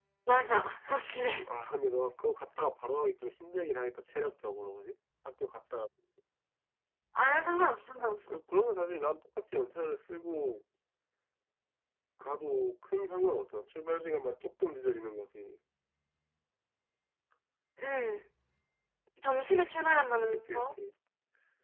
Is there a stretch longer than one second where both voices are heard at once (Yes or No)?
No